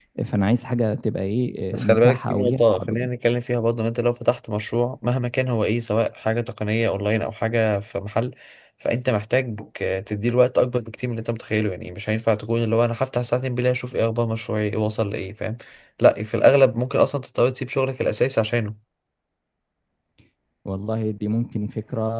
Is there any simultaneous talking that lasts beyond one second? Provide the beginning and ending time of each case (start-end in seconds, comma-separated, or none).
1.7-3.1